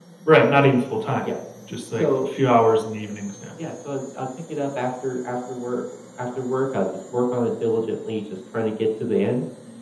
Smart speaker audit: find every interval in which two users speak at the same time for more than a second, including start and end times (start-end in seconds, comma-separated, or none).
none